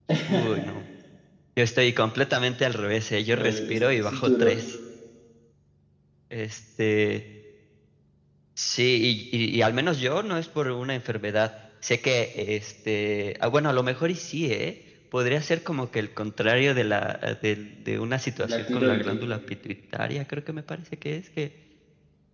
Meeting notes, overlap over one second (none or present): present